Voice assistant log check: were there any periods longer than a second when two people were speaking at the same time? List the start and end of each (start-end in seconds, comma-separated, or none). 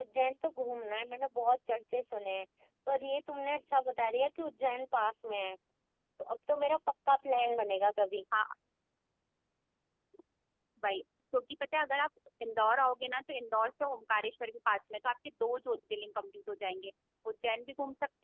none